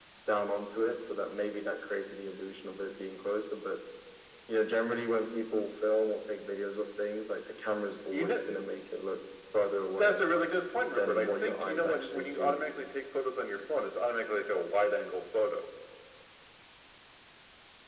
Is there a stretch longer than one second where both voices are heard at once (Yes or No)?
Yes